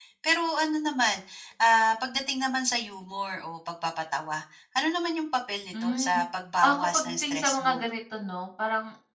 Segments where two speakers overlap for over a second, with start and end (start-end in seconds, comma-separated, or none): 6.6-7.8